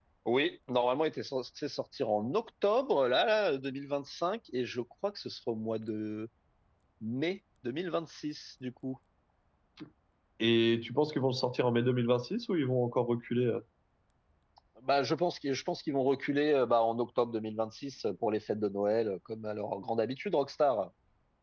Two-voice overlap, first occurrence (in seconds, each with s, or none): none